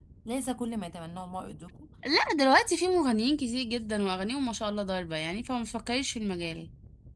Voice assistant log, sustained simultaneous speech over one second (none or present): none